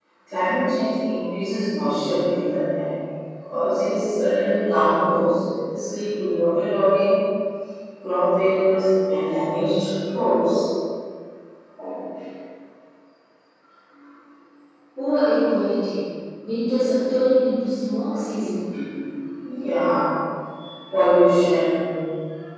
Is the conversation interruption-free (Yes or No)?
Yes